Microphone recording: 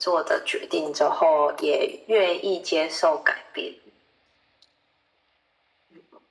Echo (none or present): present